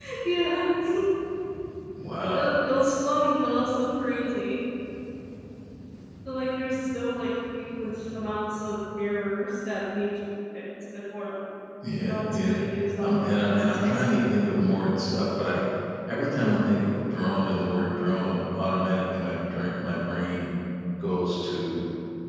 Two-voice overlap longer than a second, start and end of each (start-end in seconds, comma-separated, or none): 13.0-14.4